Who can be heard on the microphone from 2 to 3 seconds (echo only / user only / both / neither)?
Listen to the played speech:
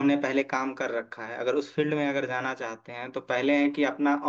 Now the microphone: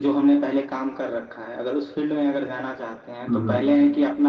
echo only